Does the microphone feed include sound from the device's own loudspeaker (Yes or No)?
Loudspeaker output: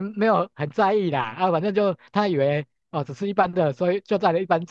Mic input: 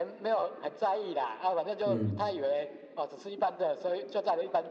Yes